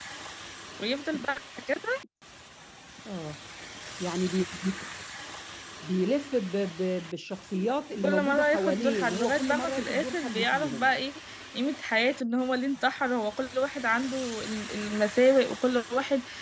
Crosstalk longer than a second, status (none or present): present